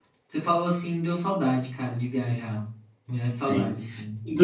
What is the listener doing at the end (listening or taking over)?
taking over